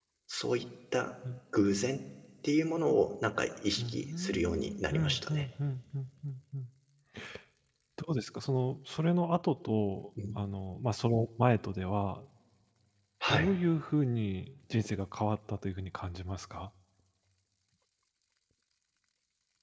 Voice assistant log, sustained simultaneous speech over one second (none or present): present